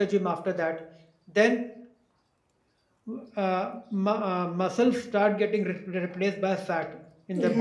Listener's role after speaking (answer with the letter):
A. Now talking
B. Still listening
A